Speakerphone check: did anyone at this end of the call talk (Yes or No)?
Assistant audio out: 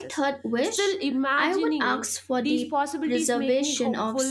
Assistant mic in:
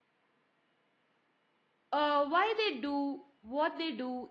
Yes